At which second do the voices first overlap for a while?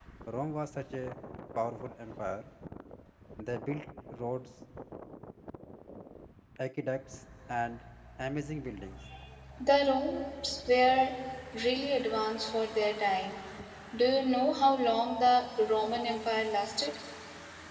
none

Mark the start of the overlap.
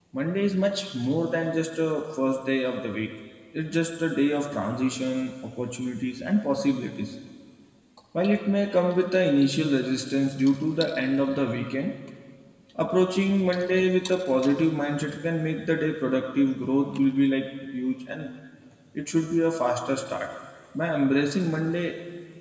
none

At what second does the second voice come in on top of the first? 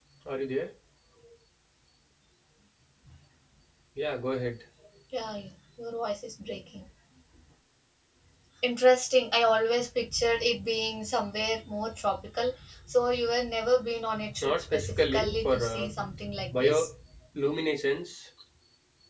14.4 s

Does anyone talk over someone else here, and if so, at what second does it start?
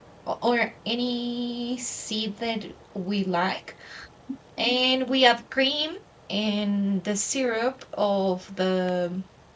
none

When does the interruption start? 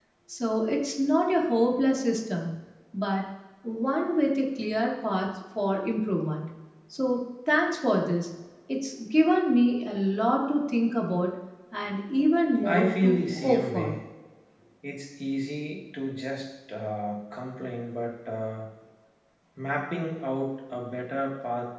12.6 s

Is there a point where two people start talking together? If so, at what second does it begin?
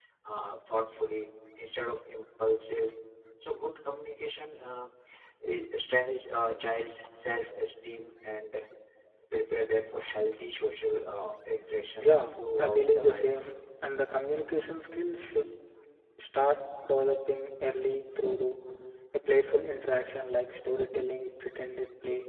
12.0 s

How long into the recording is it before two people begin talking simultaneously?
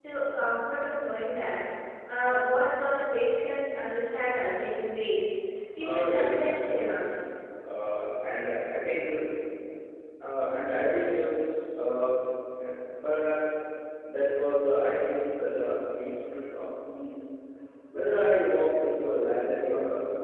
5.8 s

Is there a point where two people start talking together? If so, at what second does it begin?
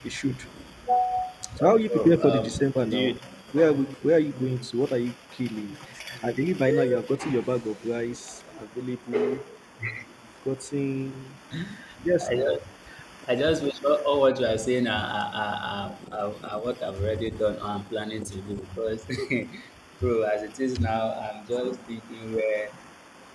1.6 s

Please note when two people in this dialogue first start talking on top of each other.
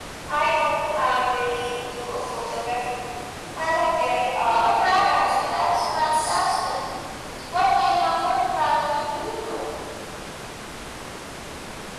4.5 s

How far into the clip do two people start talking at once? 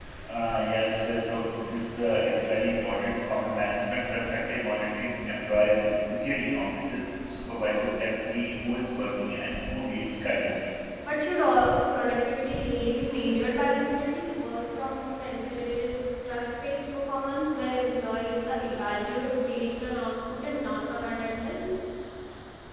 none

